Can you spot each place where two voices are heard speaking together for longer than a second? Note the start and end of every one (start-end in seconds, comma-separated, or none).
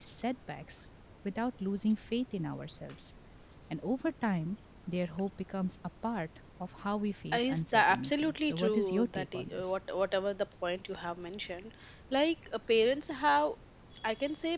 7.4-9.7